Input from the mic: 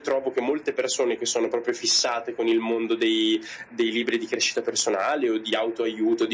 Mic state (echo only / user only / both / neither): echo only